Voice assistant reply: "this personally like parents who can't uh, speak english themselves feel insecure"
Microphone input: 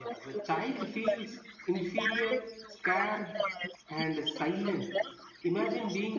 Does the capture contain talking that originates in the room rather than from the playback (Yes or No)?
Yes